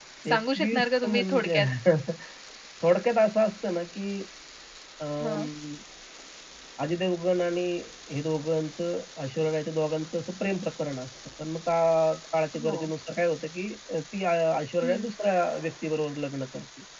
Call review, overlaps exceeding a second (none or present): present